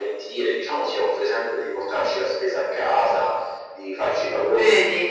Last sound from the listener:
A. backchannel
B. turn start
A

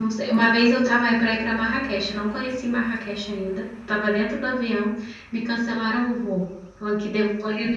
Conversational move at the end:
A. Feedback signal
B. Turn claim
A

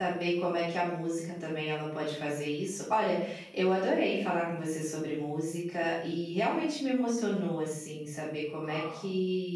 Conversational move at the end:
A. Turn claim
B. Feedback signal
B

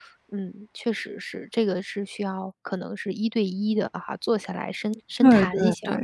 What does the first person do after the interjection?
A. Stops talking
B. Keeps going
A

